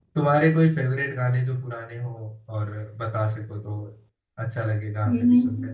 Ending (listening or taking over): taking over